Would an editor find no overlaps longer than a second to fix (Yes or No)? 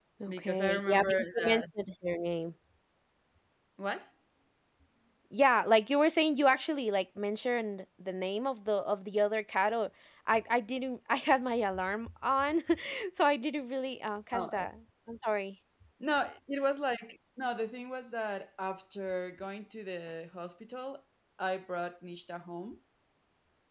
No